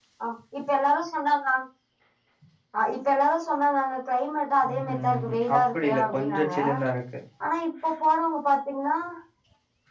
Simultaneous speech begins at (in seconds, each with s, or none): 4.6 s